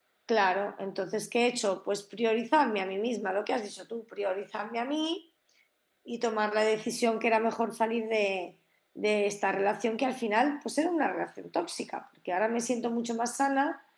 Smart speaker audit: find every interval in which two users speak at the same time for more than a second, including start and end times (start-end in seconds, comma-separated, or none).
none